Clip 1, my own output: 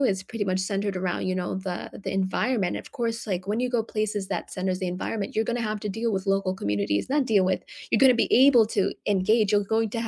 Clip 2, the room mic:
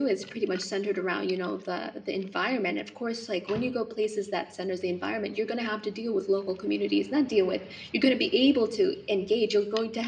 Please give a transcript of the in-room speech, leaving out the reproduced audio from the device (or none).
none